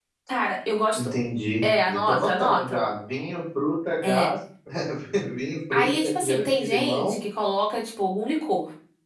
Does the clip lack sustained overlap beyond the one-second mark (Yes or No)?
No